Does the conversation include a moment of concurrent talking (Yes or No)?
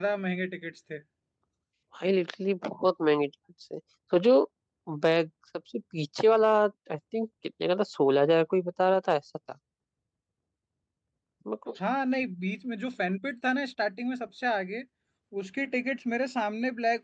No